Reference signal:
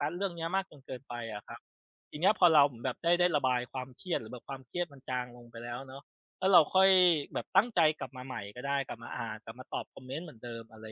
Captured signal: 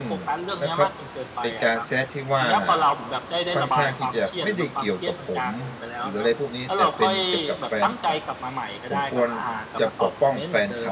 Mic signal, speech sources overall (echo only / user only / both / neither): both